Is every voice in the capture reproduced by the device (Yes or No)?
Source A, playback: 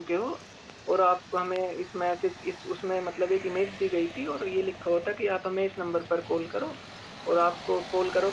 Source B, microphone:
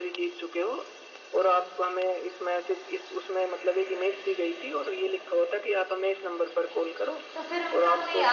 No